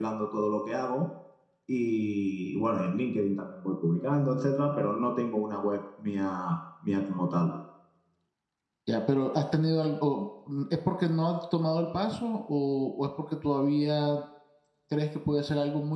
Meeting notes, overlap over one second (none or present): none